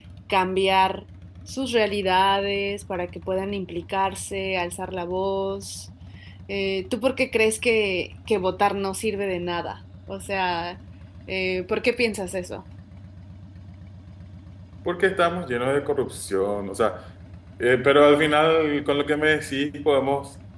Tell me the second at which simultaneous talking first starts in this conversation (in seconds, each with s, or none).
none